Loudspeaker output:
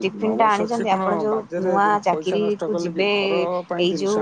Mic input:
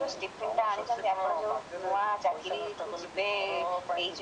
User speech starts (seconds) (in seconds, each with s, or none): none